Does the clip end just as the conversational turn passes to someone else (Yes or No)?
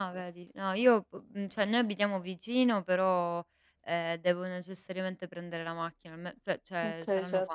No